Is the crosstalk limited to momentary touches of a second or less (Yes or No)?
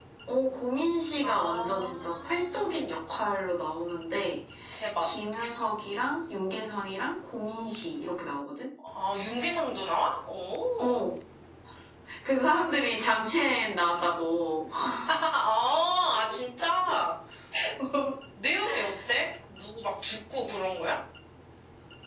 No